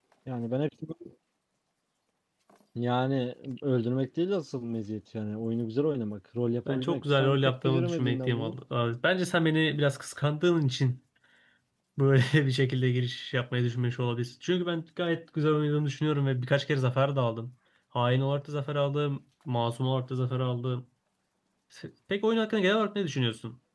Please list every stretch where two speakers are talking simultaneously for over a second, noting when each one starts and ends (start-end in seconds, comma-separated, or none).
6.7-8.5